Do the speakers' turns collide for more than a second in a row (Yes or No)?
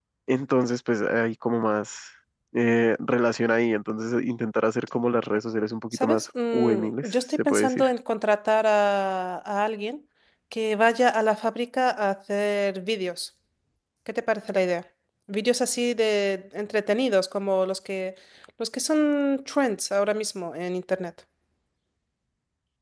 Yes